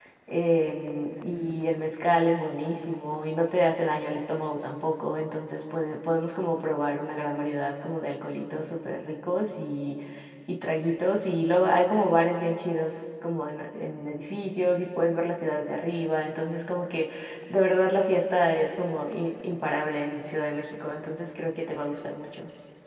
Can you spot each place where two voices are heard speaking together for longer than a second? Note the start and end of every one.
none

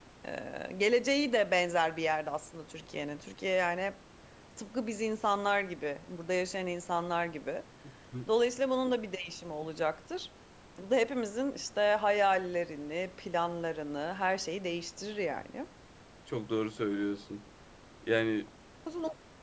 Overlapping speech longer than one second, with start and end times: none

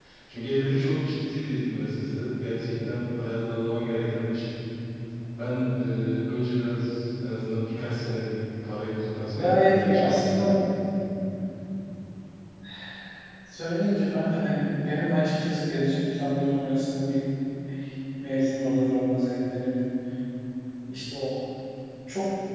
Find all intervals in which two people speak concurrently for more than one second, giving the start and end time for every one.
9.3-10.5

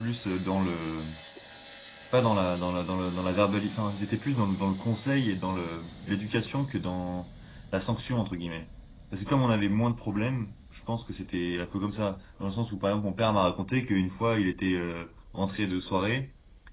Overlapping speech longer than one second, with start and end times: none

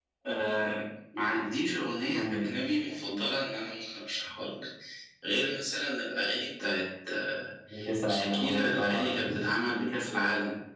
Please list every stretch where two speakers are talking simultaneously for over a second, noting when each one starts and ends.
8.1-9.4

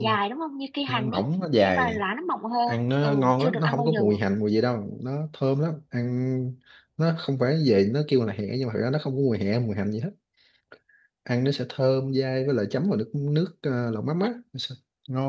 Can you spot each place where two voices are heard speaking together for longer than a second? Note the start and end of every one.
2.7-4.0

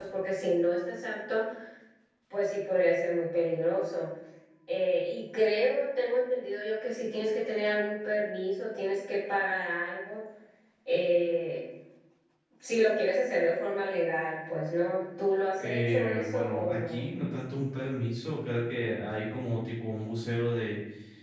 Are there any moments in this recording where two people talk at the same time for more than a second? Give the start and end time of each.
15.6-17.0

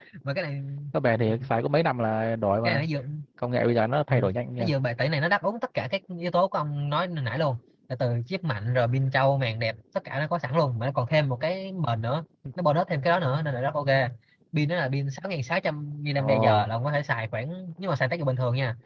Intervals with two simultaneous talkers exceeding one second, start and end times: none

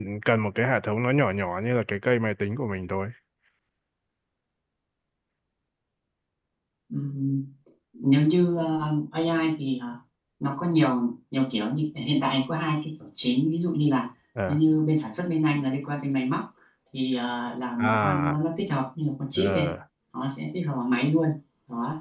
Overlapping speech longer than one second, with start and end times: none

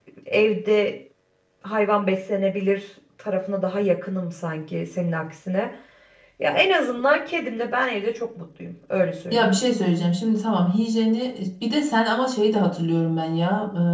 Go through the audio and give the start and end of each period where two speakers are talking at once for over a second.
none

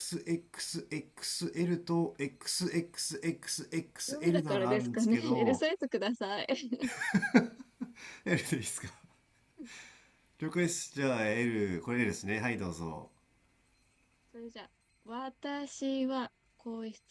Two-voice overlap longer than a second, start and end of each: 4.1-5.6

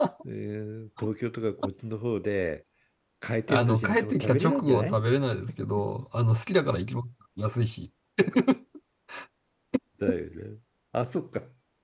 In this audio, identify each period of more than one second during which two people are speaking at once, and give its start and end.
3.5-5.0

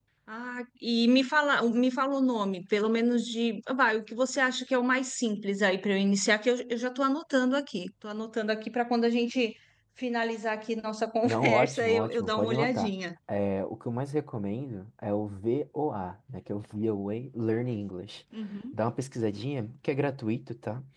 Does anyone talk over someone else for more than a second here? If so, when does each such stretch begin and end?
11.2-12.9

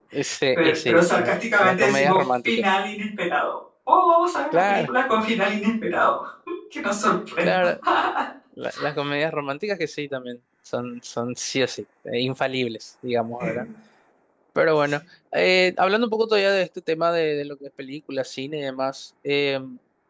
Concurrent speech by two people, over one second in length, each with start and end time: 0.6-2.6

